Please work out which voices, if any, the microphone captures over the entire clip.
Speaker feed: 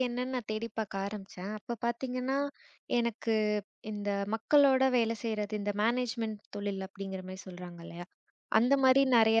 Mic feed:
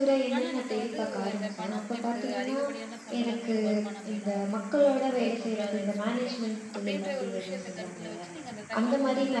both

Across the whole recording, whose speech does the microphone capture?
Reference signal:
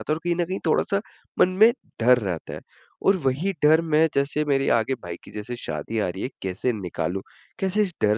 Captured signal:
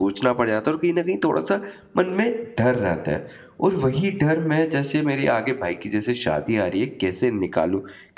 echo only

